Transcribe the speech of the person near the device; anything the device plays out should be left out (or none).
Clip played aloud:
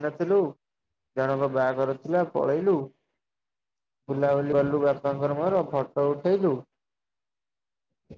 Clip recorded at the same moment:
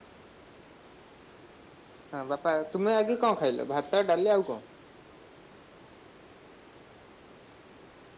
ହଁ ବାପା ତୁମେ ଆଗେ କଣ ଖାଇଲ ଭାତ ଡାଲି କଣ?